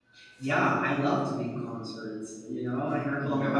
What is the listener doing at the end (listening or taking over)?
listening